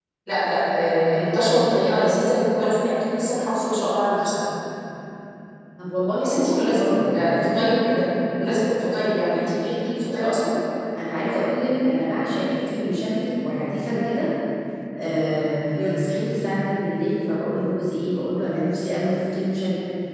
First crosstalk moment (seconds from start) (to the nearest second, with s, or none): 6 s